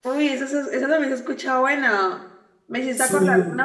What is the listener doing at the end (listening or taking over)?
listening